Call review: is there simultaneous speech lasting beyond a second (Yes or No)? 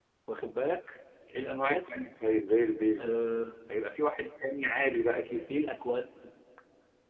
No